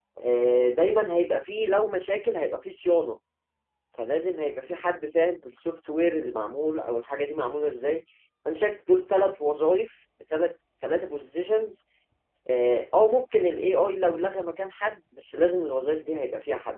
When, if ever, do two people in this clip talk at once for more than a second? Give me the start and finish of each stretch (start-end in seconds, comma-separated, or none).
none